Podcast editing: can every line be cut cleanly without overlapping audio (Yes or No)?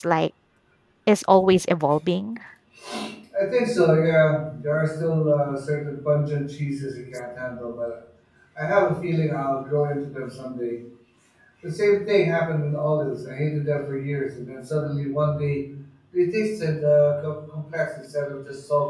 Yes